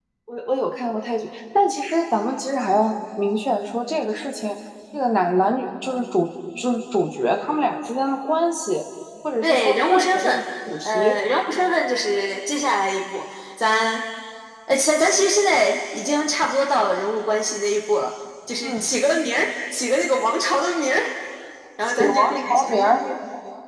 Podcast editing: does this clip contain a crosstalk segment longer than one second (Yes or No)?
Yes